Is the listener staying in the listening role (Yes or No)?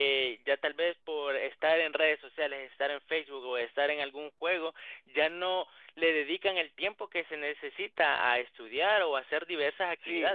No